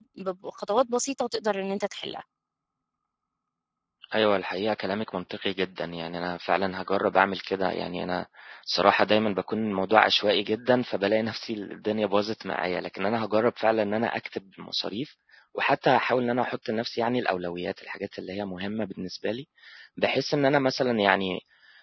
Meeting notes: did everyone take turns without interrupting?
Yes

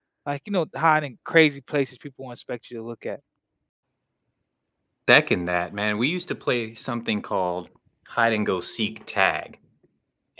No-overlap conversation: Yes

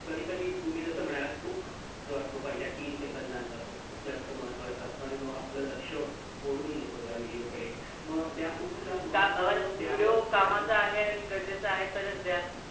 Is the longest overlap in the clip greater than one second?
Yes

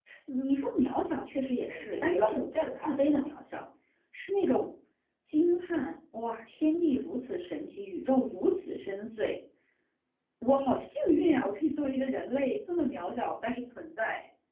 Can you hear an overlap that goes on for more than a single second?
Yes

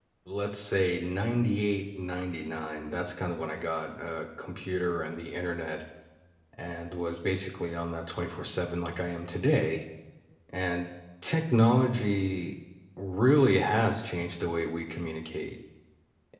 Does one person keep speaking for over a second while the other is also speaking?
No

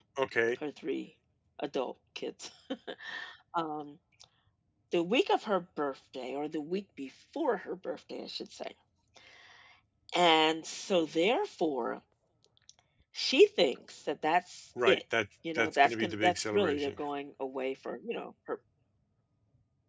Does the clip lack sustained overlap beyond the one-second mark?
No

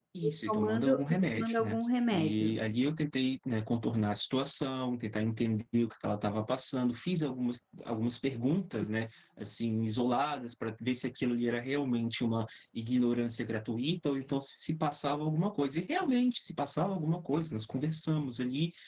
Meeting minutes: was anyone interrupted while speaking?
Yes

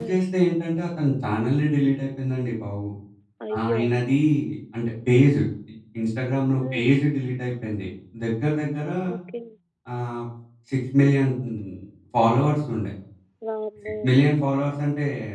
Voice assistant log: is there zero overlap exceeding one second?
Yes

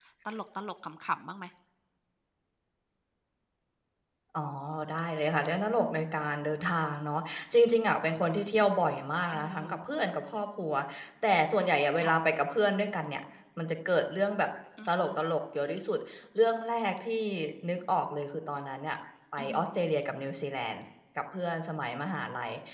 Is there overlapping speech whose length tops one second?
No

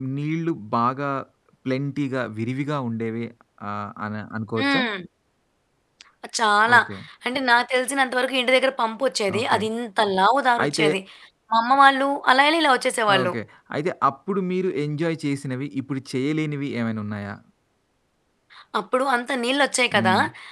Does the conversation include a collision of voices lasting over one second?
No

